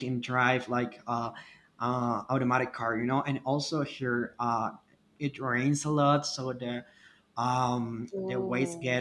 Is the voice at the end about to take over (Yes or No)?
No